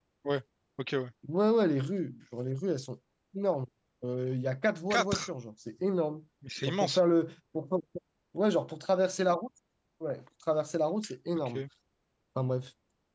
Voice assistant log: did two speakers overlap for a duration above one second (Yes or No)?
No